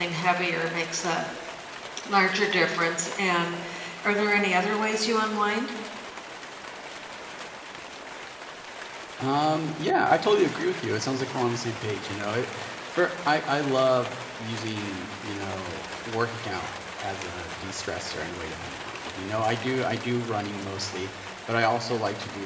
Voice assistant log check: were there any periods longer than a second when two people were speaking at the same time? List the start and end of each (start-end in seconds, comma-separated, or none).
none